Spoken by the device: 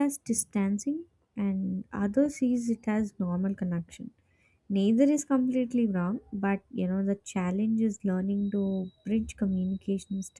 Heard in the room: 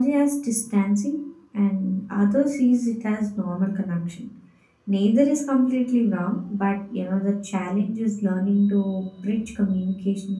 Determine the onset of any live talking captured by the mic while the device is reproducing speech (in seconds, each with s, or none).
none